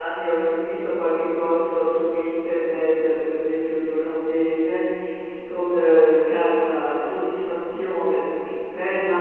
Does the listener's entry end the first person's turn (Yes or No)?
No